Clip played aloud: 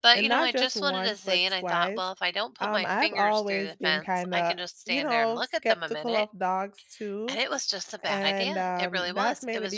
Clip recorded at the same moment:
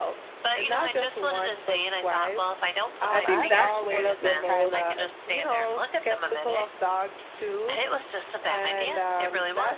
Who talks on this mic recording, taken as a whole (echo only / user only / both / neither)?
both